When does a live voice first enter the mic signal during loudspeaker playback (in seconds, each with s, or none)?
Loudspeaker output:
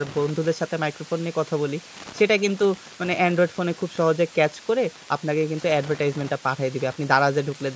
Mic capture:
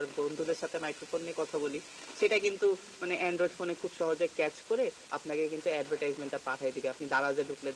none